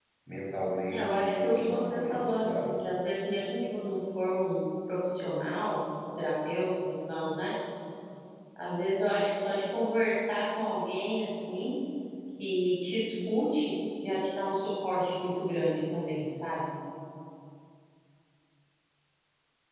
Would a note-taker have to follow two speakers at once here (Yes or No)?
Yes